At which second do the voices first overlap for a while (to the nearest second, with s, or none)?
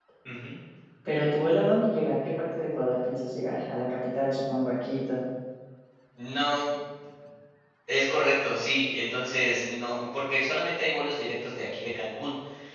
none